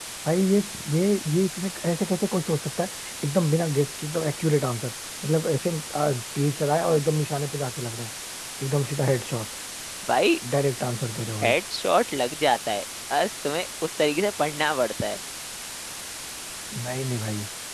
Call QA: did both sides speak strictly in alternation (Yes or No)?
Yes